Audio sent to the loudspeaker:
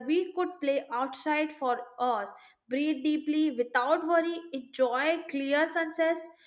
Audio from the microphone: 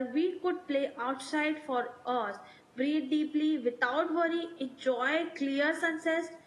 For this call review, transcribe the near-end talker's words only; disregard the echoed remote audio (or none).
none